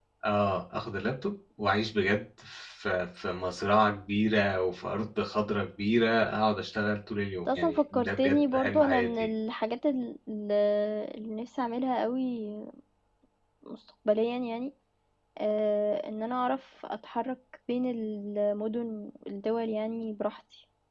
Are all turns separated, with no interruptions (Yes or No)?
No